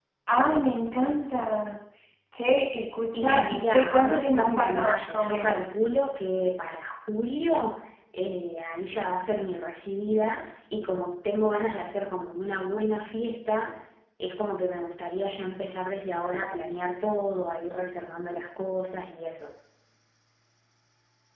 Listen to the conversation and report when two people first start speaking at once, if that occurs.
3.2 s

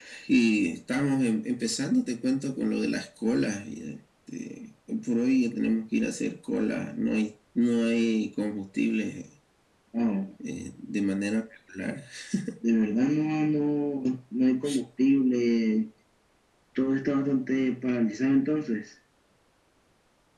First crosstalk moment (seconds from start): none

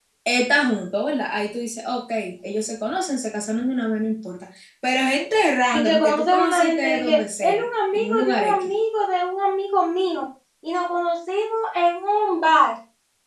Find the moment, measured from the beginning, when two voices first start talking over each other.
5.7 s

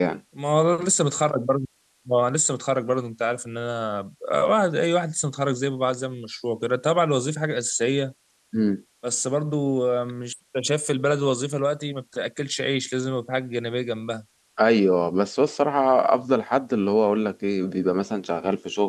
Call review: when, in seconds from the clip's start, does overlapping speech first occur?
none

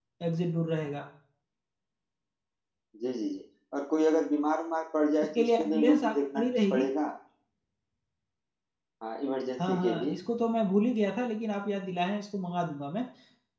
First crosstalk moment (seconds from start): 5.4 s

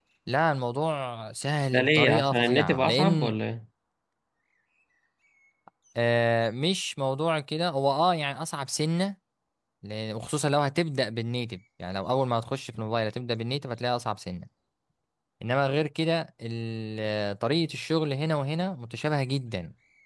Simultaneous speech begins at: 1.7 s

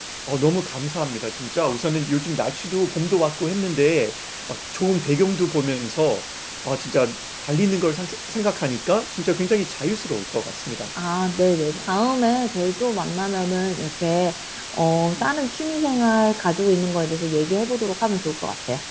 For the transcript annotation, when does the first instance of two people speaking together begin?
none

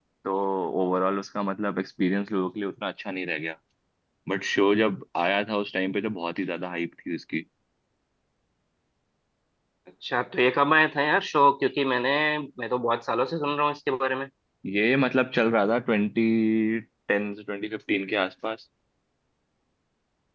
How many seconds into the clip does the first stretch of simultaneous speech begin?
none

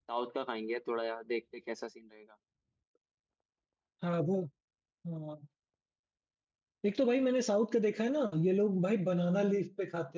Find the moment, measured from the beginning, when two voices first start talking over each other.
none

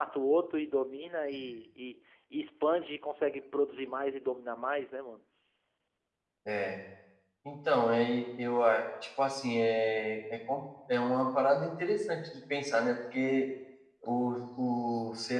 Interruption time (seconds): none

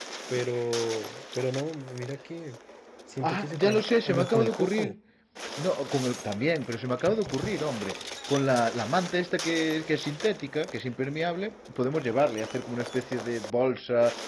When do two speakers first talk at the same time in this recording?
3.2 s

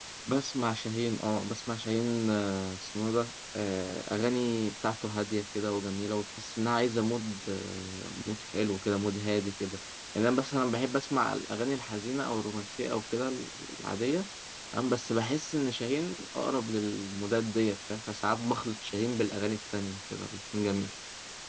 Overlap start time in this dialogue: none

